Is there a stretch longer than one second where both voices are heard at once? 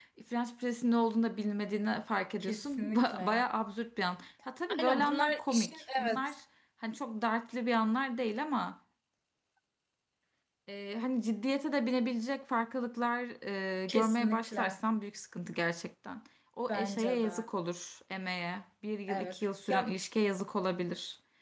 Yes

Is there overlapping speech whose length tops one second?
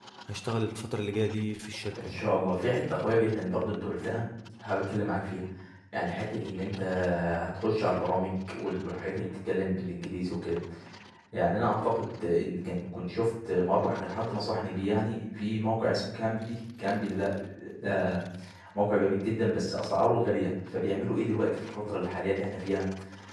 No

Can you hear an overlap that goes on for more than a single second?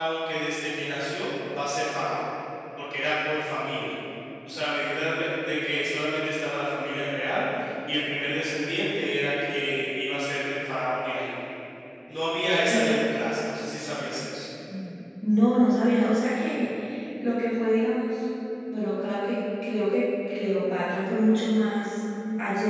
No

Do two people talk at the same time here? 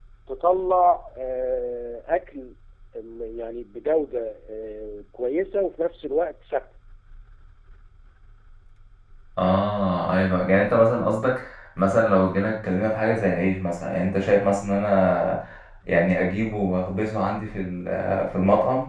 No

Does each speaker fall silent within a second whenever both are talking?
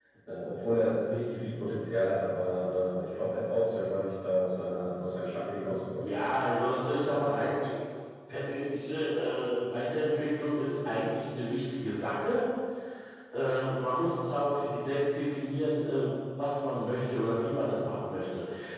Yes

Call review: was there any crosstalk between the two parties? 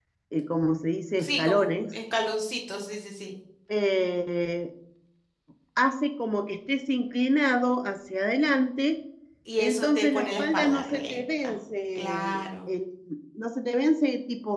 Yes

